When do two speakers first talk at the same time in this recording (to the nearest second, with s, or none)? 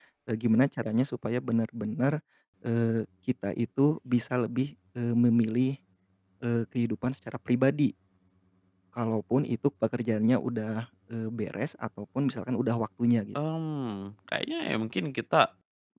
none